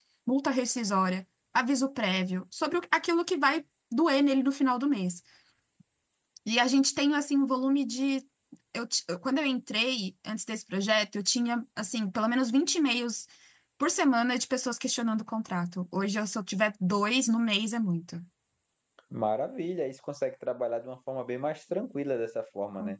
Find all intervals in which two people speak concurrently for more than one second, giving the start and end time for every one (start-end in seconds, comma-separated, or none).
none